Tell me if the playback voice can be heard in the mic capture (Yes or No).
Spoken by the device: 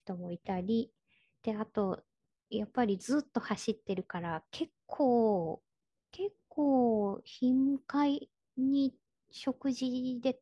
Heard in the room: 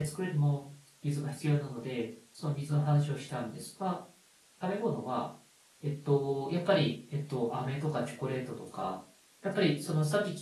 No